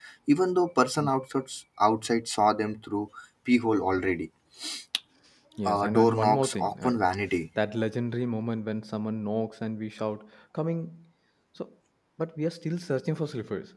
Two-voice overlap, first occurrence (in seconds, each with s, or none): 5.7 s